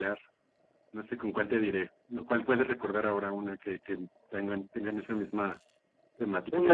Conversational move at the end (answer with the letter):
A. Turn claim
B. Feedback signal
A